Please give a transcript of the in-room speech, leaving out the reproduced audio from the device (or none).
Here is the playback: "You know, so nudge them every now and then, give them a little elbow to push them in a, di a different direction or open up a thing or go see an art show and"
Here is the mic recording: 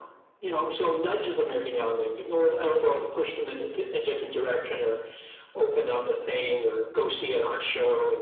none